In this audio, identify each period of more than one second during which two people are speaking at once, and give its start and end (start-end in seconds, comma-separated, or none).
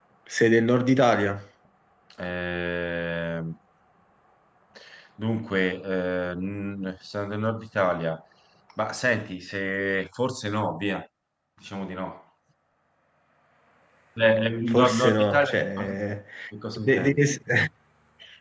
14.7-16.0